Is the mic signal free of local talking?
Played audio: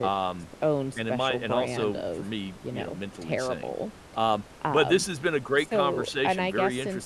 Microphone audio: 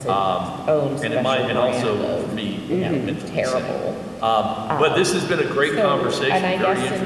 No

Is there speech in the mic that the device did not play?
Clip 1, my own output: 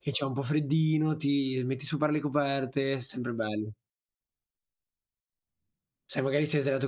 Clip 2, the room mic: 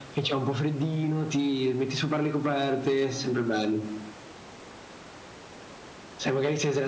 No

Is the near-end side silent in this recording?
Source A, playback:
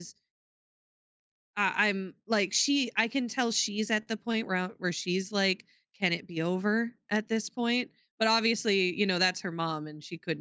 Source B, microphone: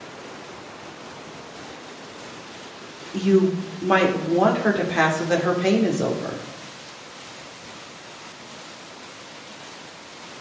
No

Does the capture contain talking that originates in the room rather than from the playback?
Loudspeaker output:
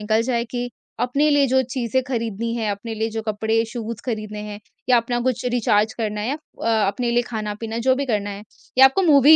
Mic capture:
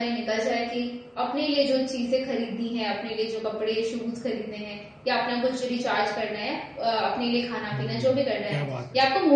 Yes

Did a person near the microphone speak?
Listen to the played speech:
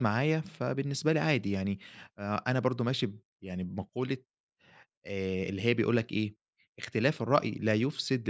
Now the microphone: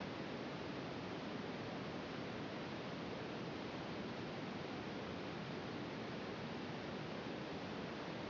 No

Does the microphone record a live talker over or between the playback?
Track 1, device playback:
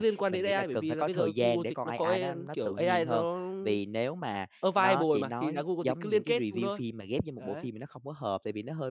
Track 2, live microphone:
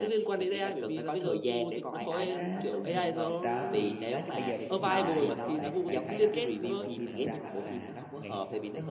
Yes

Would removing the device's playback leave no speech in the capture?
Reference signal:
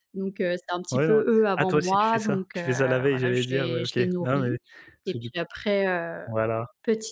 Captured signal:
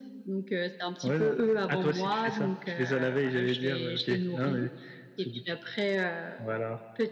Yes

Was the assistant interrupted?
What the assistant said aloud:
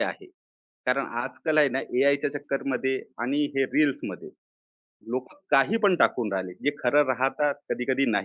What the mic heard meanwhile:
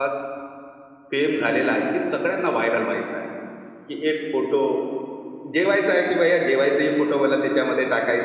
Yes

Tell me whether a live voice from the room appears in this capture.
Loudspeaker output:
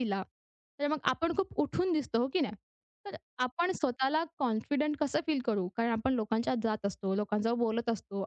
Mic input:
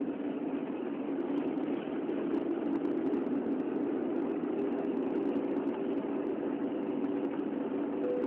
No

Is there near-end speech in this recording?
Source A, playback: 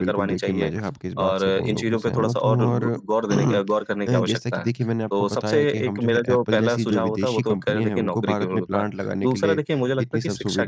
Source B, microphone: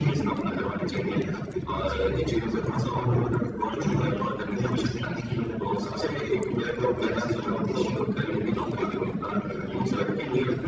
No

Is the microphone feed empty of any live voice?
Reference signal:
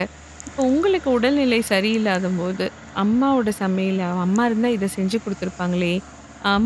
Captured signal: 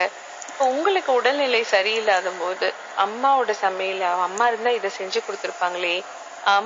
Yes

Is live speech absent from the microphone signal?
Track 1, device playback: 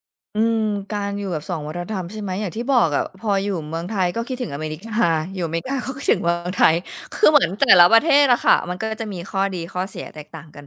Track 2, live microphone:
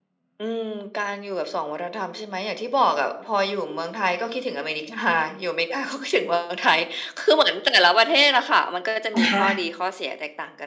No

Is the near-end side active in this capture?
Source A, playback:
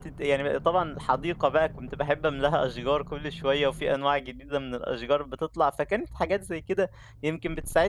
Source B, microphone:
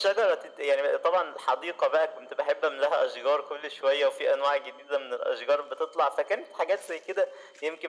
No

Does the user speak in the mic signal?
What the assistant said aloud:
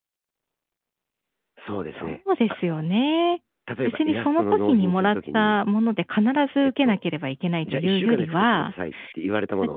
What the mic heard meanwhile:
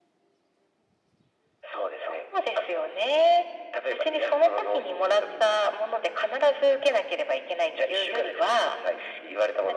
No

